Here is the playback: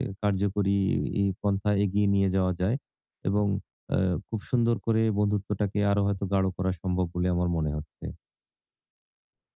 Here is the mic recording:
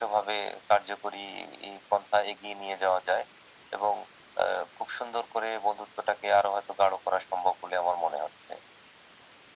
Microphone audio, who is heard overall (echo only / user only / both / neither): echo only